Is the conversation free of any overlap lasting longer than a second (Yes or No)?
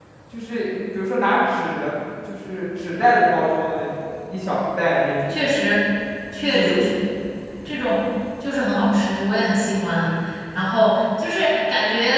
Yes